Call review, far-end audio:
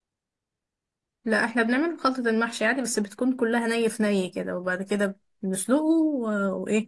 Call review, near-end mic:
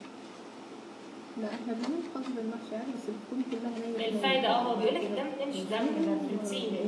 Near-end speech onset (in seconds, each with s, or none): 4.0 s